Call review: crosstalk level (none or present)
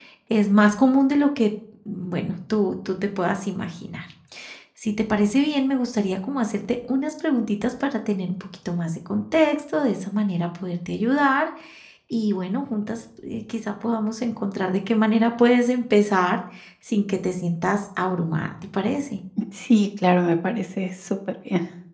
none